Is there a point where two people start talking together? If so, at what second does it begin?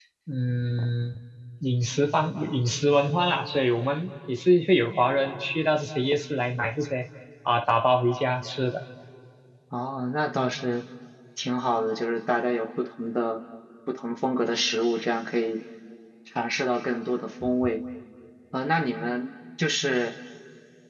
none

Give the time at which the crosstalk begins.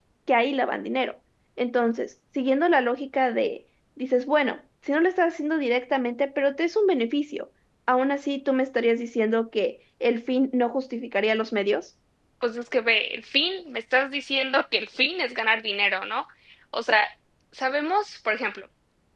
none

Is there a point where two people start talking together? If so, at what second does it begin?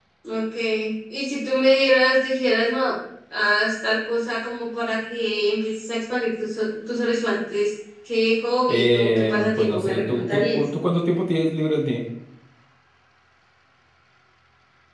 8.7 s

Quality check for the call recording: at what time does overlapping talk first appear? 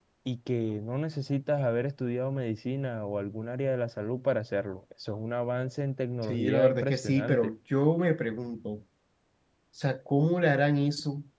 6.2 s

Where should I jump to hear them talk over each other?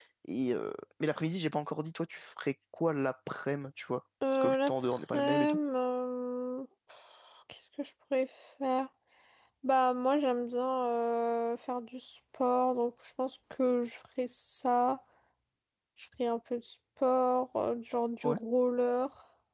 4.2 s

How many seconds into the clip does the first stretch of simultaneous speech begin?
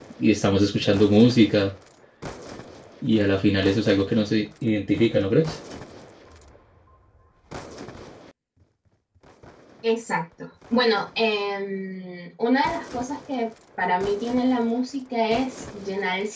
none

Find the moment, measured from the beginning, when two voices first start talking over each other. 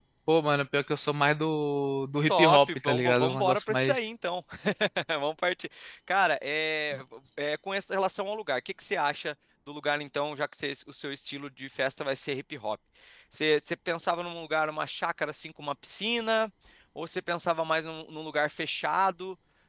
2.3 s

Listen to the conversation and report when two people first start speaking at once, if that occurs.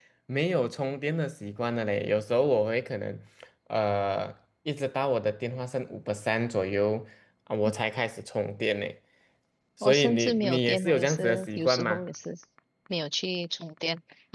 9.8 s

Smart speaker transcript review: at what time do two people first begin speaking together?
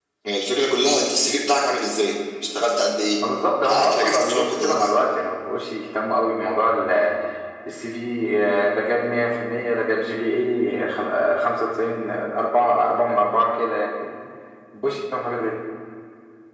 3.6 s

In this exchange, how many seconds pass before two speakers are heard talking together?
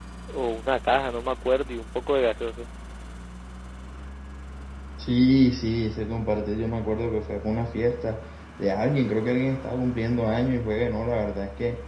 none

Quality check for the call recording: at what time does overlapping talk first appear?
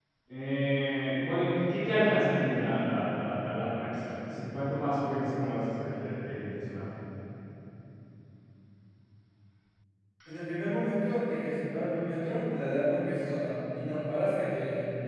none

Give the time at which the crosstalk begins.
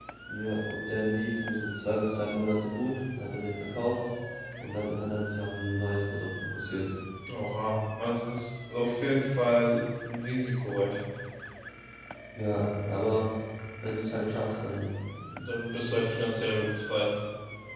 none

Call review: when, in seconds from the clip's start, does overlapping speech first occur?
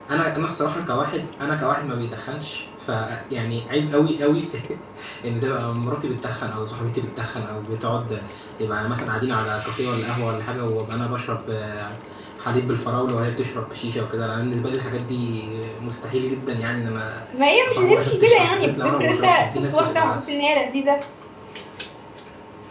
17.7 s

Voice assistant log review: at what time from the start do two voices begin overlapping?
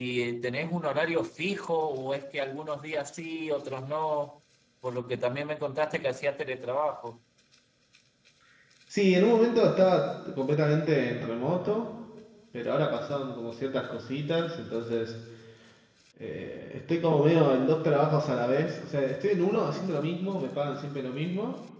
none

